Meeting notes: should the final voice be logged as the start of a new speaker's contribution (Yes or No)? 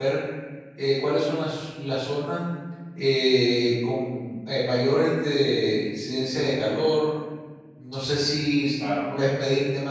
No